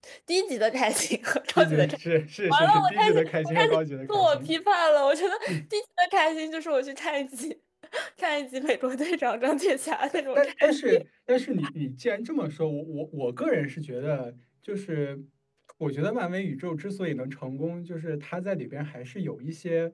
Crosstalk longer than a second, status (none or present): present